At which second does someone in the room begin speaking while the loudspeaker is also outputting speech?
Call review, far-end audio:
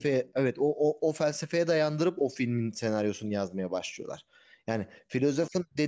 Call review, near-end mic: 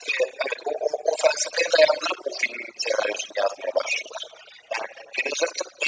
none

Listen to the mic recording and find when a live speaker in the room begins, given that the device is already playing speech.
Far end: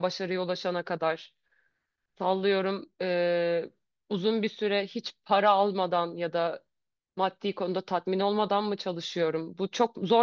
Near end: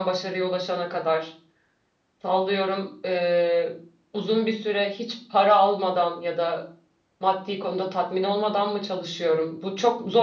none

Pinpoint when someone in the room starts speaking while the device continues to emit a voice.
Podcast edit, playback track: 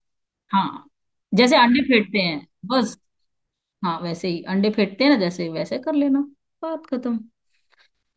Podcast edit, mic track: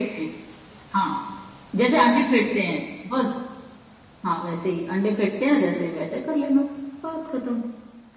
none

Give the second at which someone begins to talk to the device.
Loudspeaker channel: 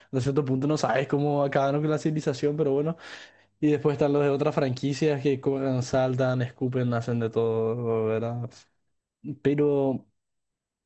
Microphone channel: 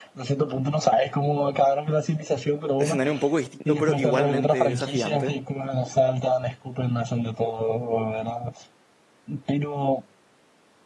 3 s

